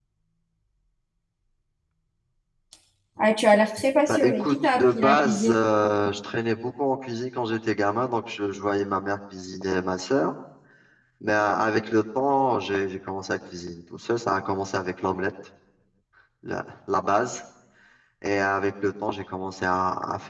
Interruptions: present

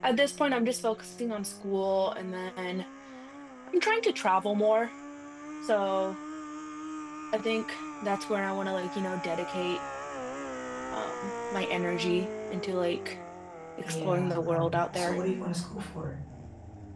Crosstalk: present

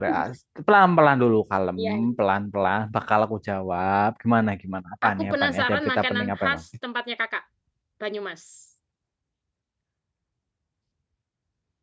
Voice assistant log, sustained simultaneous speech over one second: present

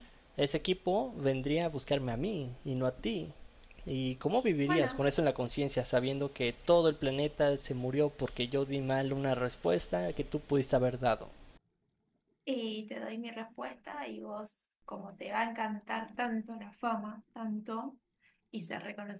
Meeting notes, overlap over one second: none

